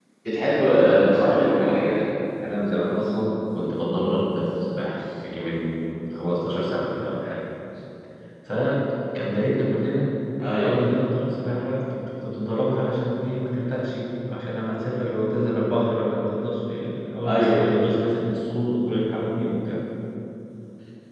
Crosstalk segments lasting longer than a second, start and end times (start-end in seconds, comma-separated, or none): 0.7-2.0